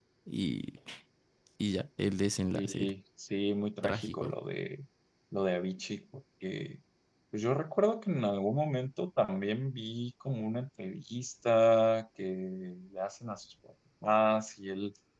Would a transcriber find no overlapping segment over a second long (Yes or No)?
Yes